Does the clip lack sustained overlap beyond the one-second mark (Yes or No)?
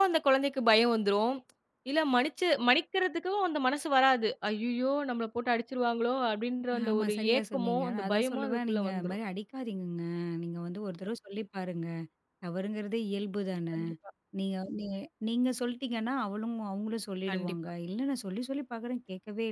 No